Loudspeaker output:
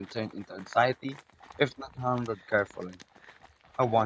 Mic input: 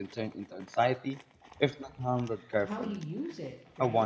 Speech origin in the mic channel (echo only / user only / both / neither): both